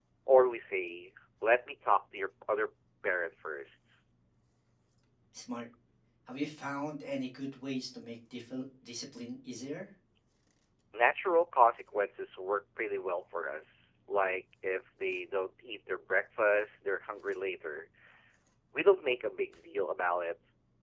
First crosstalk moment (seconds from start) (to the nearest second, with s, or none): none